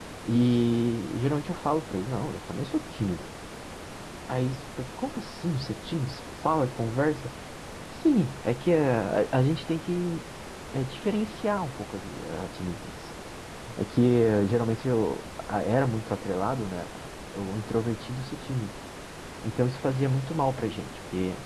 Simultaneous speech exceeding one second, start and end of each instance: none

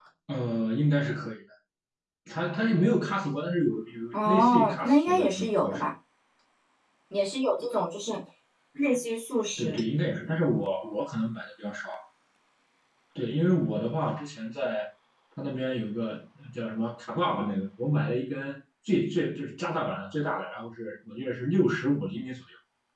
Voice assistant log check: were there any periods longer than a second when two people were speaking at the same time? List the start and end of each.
4.1-5.9

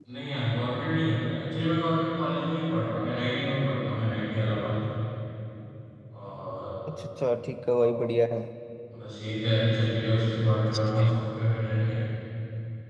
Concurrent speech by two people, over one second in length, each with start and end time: none

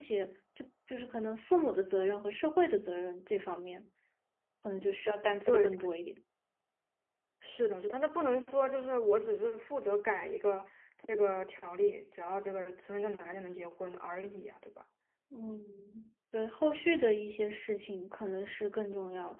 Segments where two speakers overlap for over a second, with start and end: none

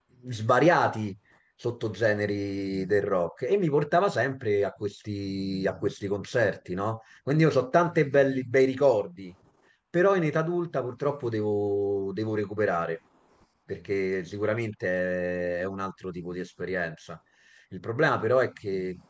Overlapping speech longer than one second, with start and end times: none

